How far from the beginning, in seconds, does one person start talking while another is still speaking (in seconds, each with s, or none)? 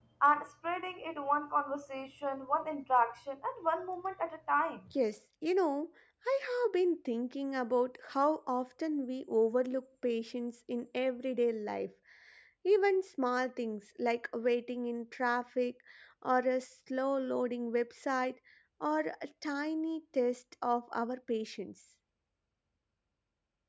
none